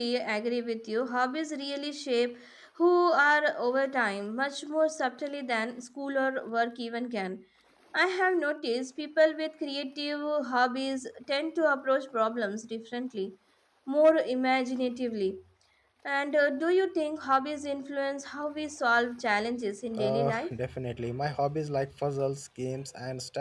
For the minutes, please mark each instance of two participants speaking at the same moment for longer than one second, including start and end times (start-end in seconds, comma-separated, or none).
none